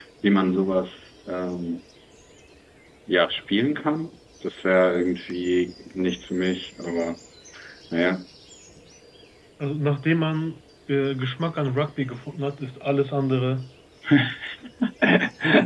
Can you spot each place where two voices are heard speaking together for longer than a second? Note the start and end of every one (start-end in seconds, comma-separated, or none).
none